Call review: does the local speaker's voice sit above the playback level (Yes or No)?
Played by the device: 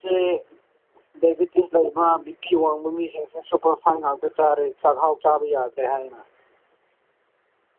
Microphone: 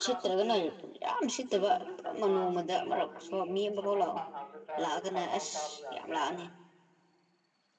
Yes